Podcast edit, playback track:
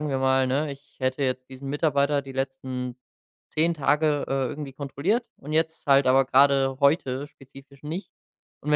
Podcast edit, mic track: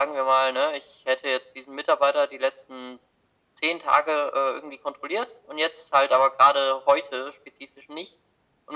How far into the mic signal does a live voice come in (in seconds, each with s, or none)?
none